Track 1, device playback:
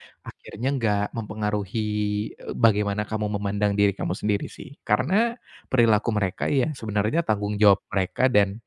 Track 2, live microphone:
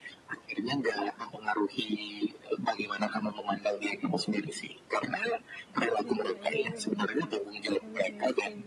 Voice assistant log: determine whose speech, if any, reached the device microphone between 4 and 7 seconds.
both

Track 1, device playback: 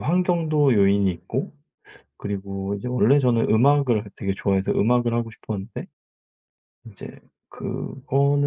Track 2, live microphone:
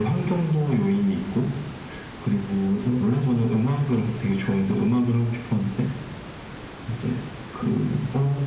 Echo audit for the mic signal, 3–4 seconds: echo only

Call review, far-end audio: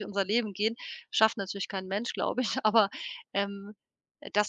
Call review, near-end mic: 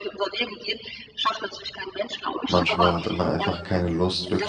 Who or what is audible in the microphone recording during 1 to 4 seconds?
both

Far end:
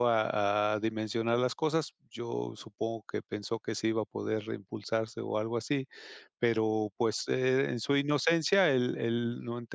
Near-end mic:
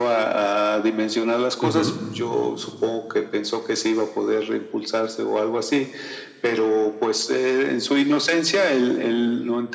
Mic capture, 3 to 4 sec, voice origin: echo only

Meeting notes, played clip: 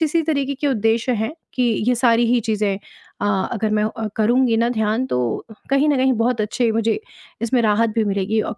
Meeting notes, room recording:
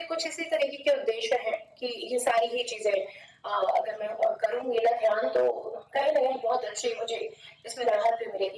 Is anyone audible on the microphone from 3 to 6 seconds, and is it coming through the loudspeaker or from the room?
echo only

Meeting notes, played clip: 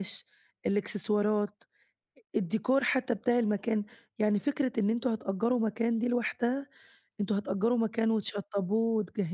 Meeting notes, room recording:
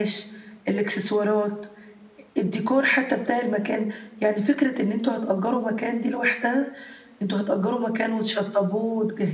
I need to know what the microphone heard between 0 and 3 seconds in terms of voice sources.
echo only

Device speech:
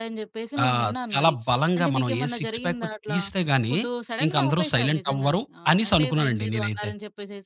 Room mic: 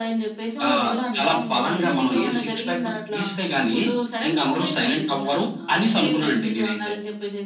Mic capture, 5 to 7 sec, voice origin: echo only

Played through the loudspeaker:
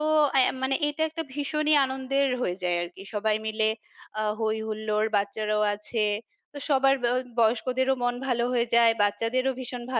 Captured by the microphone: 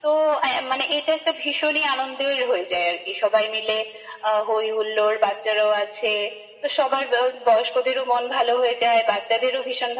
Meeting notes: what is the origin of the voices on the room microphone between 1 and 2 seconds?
echo only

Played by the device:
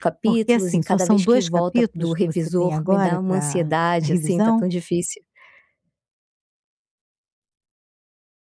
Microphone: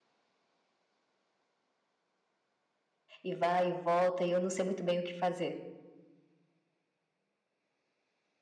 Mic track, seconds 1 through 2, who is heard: neither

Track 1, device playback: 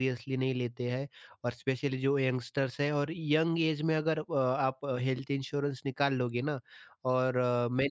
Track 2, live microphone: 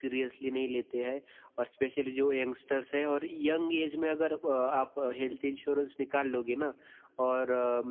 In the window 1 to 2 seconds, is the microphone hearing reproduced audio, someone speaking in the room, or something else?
echo only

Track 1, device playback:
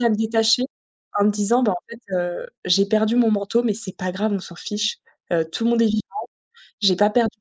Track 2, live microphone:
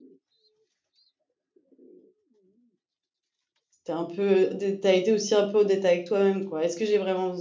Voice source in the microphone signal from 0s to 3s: neither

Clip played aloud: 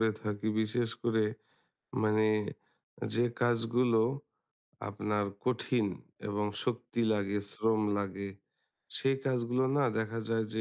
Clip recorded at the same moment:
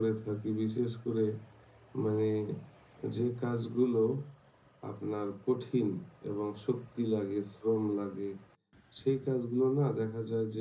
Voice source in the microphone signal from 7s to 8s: echo only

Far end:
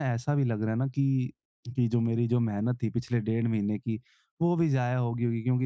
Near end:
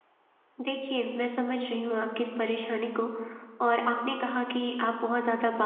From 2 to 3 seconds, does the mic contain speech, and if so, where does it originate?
user only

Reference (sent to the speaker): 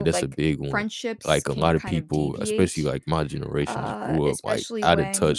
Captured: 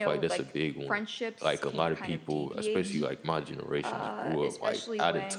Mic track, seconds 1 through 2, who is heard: echo only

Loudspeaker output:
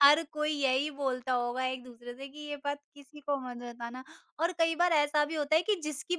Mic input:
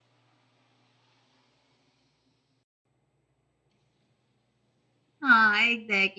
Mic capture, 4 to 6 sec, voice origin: user only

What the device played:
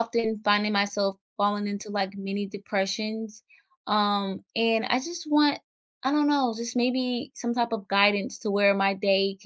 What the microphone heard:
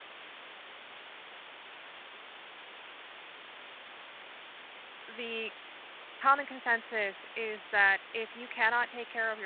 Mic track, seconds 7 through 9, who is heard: user only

